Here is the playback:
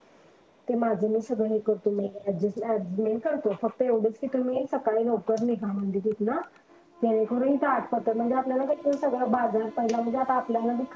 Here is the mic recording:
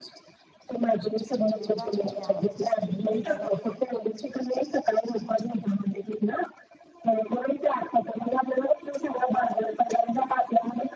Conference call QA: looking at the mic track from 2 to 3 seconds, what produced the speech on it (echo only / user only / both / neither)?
both